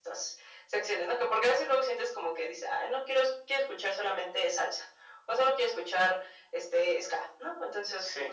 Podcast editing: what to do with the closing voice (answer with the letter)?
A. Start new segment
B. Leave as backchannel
B